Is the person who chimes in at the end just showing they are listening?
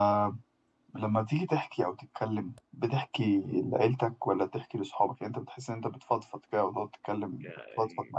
No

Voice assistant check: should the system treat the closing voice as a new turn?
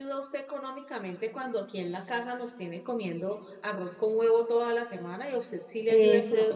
Yes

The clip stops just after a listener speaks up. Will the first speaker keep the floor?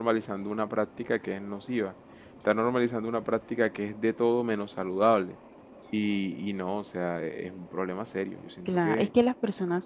No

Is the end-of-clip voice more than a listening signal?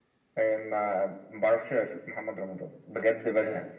Yes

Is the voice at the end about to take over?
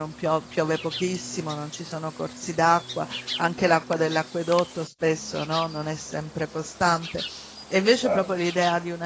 No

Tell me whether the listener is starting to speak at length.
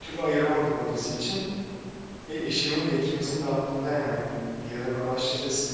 Yes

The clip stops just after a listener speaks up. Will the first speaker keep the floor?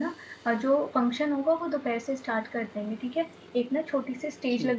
Yes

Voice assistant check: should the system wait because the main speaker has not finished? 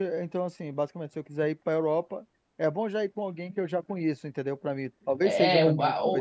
No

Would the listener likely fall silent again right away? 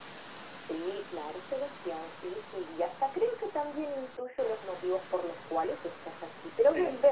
Yes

